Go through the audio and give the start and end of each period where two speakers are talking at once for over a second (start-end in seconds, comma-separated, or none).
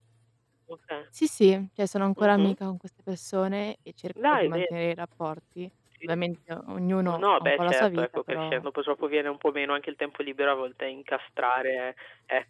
7.1-8.6